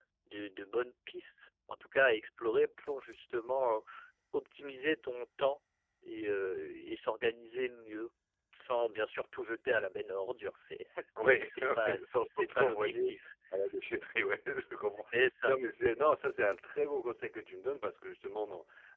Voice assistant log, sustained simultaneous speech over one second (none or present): present